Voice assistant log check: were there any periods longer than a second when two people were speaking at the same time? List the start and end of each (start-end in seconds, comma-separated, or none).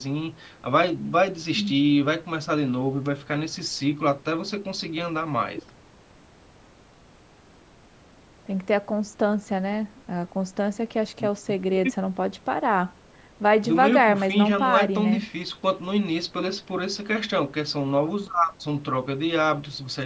13.6-15.2